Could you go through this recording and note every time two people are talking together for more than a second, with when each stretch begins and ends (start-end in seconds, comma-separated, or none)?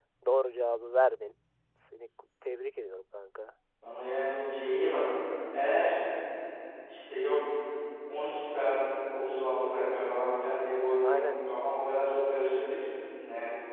none